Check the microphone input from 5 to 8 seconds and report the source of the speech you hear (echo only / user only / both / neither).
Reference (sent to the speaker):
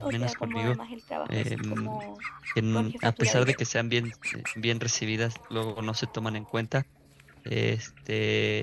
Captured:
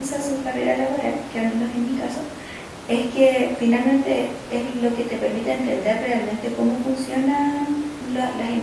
user only